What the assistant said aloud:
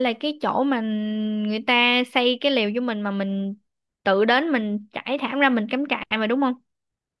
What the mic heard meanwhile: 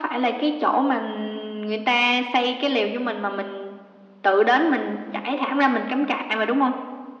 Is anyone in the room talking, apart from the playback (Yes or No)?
No